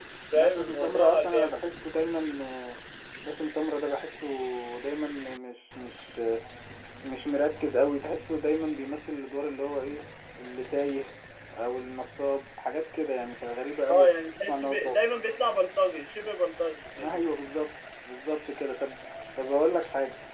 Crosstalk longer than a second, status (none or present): present